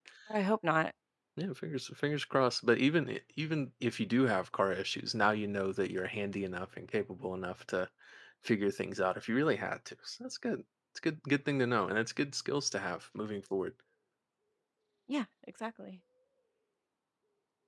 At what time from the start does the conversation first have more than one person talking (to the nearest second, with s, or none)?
none